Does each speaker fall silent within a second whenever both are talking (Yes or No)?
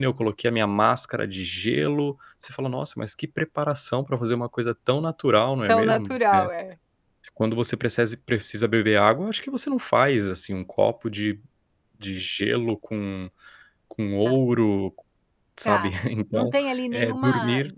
No